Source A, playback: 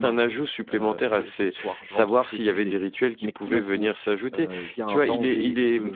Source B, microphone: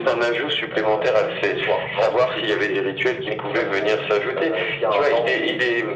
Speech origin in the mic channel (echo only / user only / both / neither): echo only